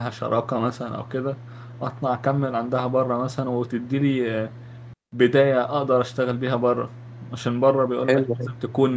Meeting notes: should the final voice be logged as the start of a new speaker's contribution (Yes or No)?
No